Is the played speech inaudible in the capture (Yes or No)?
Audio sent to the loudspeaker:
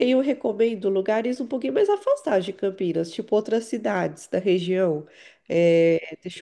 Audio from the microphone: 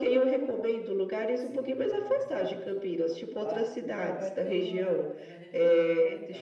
No